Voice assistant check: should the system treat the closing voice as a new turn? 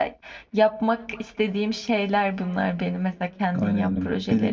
Yes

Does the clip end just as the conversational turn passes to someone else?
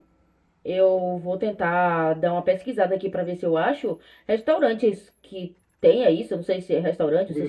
No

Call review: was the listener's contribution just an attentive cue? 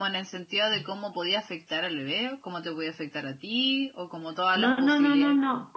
No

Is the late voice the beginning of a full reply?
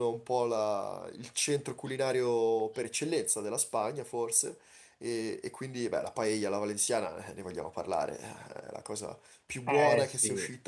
No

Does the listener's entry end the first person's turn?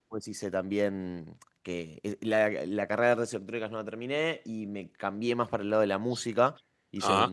No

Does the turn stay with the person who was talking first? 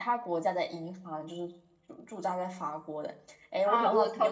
No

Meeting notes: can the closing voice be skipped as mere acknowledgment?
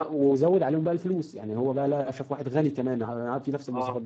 Yes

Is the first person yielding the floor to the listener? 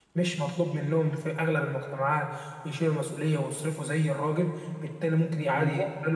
No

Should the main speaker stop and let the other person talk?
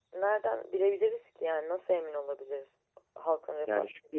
Yes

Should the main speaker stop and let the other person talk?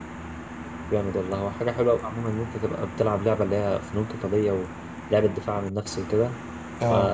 No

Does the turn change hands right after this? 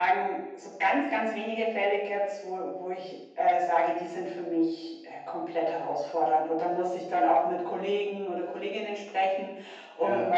No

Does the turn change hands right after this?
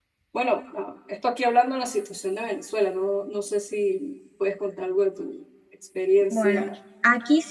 Yes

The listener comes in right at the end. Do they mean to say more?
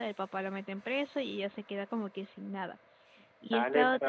Yes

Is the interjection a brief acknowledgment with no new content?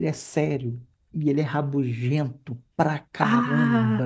Yes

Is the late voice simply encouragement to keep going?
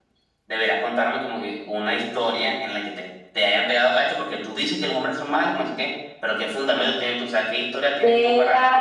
No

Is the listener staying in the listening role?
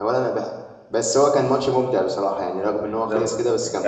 No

